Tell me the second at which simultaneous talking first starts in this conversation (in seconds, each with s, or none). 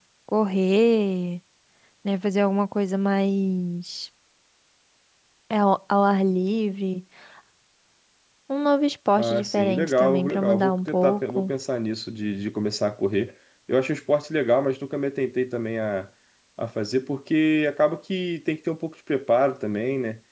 9.2 s